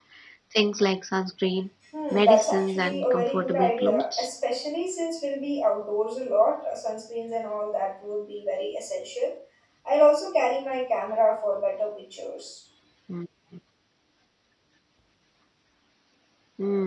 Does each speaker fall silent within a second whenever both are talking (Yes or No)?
No